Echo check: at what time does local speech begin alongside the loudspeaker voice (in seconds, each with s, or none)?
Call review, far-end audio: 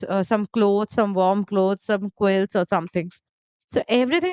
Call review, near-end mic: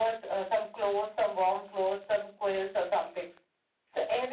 none